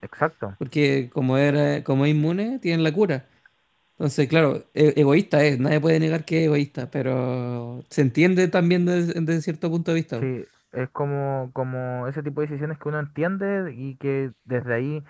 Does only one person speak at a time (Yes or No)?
Yes